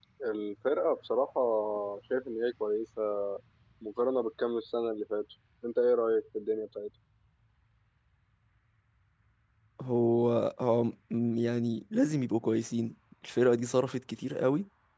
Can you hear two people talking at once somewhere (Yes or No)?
No